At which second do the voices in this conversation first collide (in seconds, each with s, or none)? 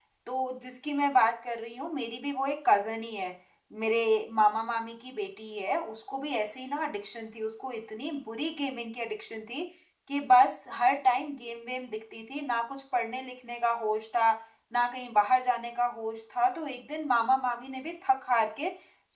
none